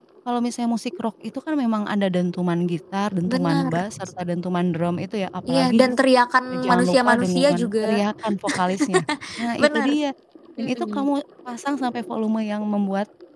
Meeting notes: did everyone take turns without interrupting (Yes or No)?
No